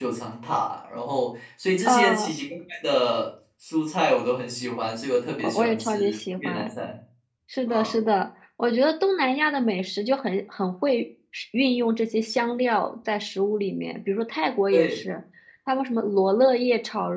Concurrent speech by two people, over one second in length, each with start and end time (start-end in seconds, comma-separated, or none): 5.4-6.8